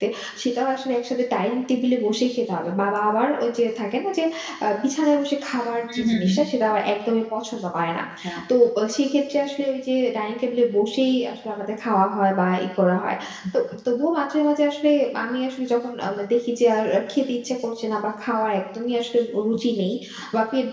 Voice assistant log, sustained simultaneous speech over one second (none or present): none